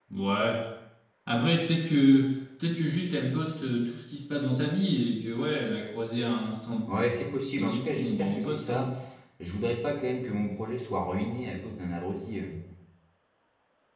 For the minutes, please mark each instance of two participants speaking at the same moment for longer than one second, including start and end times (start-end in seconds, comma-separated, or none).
7.6-8.9